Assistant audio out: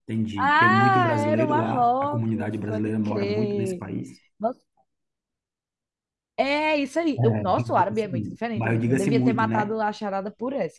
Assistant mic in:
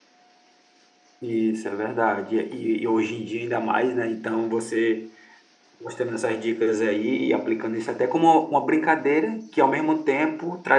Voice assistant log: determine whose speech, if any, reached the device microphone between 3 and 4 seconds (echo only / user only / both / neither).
user only